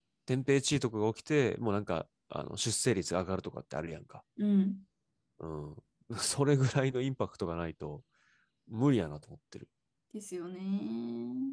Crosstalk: none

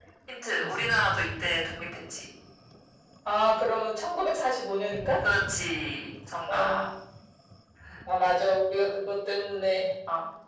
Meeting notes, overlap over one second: none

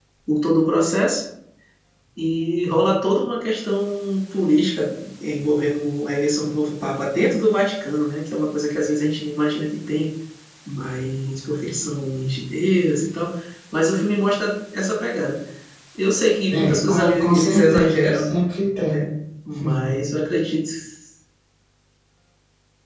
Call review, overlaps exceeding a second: present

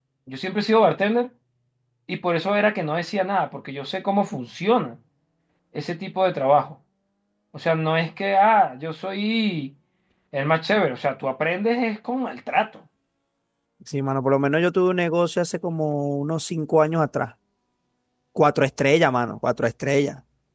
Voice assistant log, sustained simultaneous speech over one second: none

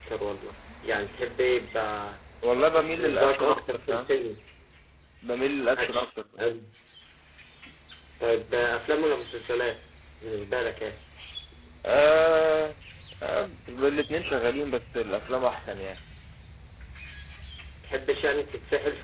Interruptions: present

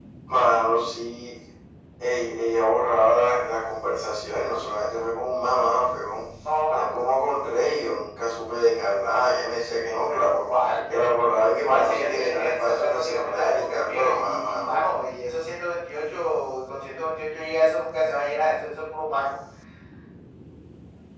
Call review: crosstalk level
present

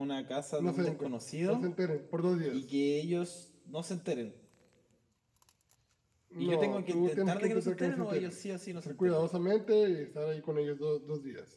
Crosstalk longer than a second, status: present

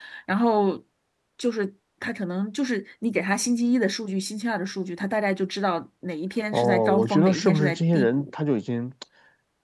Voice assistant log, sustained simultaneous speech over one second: present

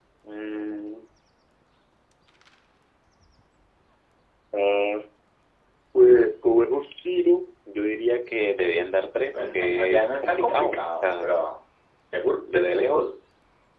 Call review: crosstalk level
present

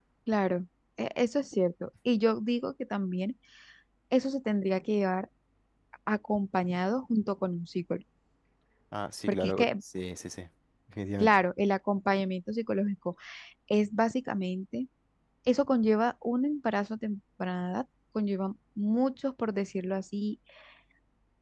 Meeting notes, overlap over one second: none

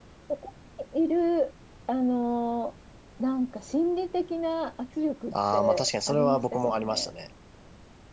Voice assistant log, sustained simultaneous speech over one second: present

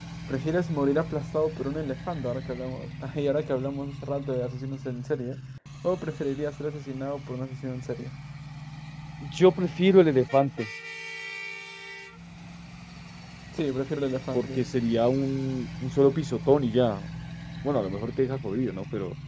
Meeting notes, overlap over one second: none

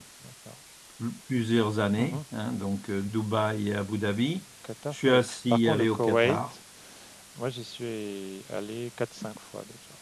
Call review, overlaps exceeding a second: present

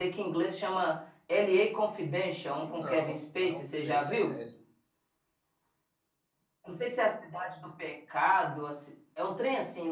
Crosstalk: present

